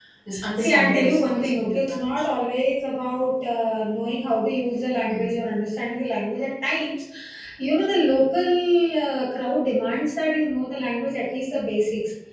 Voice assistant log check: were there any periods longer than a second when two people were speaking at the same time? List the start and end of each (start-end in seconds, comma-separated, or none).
0.6-2.3